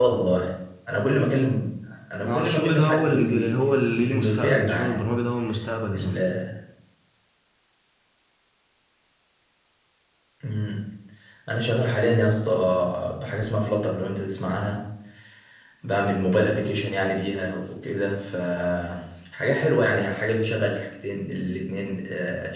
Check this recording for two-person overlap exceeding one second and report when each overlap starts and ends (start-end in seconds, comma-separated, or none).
2.2-5.0